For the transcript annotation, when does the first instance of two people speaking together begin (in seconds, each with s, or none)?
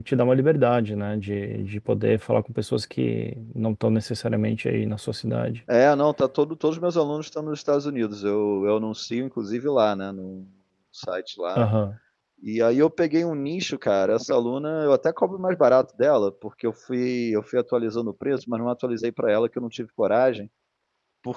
none